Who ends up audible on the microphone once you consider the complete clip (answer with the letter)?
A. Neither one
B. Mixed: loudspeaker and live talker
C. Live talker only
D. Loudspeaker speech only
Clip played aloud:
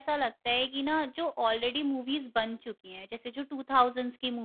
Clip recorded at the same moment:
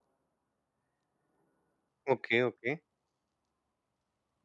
C